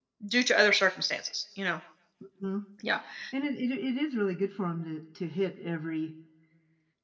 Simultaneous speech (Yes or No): No